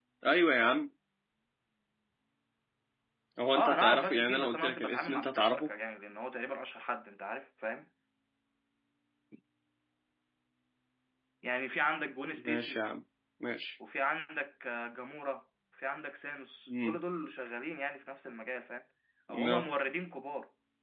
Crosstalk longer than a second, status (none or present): present